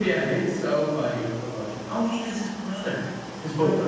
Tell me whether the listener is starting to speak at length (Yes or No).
Yes